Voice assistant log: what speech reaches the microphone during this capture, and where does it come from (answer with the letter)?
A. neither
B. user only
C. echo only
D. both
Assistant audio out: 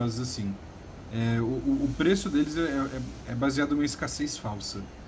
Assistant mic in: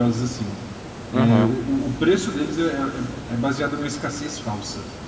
D